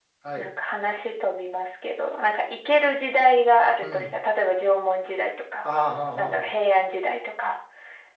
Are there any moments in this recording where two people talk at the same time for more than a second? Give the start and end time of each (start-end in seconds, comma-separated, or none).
none